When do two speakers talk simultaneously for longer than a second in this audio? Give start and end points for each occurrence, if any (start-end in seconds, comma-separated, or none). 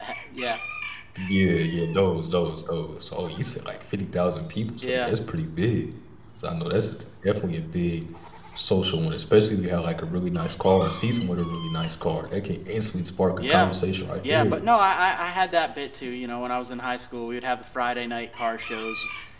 none